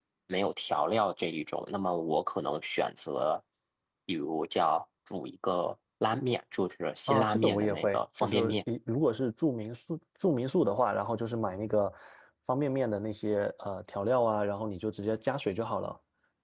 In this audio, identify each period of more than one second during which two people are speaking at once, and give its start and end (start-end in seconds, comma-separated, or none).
7.1-8.6